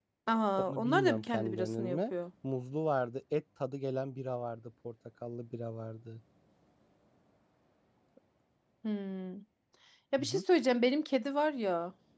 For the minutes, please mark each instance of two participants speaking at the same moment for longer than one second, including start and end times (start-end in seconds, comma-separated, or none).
0.6-2.1